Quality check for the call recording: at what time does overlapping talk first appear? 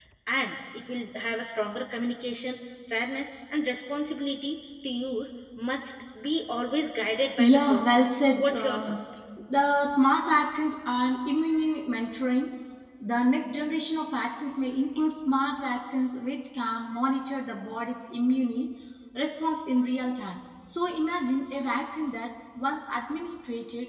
7.4 s

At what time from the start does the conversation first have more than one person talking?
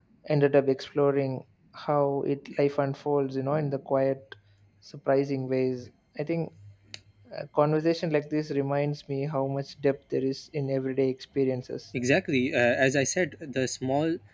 none

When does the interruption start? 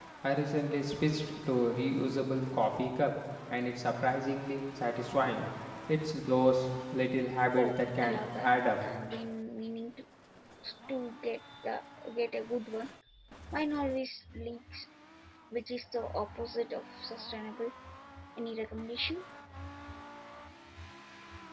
7.6 s

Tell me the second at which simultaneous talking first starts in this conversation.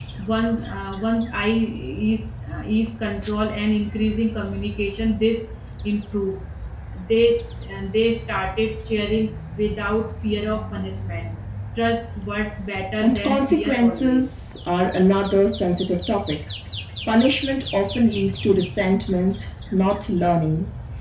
13.0 s

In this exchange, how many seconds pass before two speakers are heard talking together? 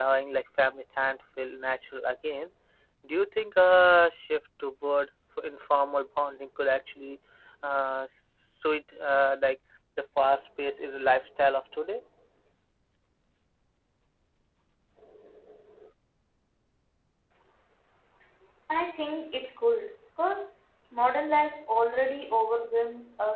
none

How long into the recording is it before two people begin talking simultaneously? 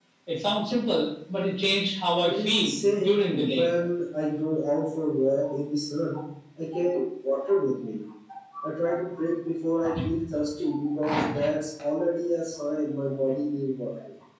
2.2 s

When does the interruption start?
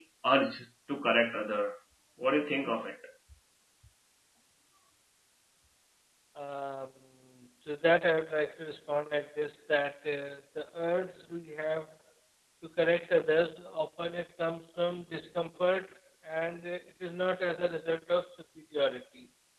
none

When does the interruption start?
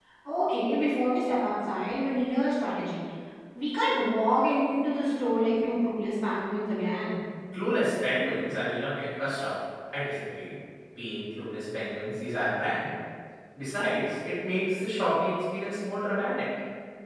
none

